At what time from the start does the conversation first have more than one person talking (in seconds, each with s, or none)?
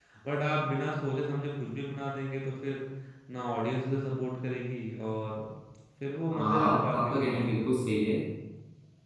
6.3 s